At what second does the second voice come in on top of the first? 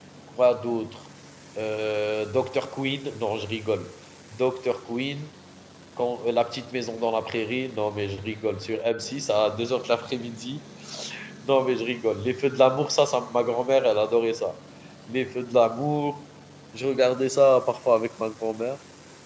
none

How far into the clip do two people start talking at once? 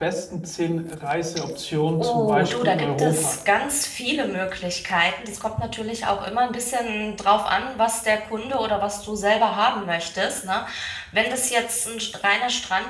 2.0 s

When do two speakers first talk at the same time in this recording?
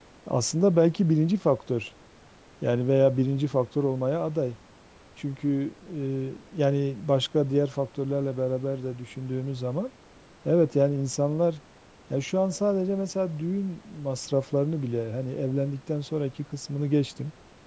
none

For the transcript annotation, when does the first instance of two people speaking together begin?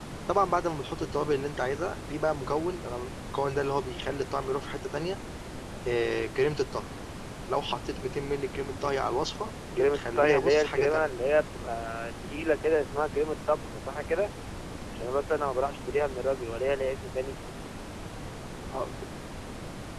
9.6 s

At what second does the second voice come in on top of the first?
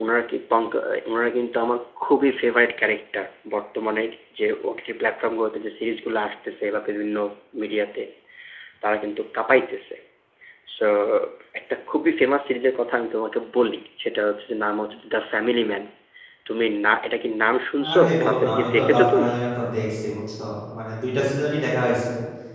17.8 s

